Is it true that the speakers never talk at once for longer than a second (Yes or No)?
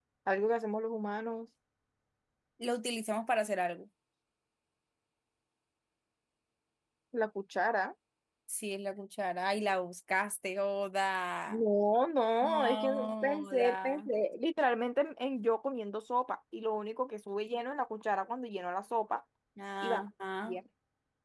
No